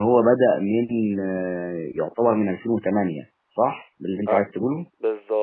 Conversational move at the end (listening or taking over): taking over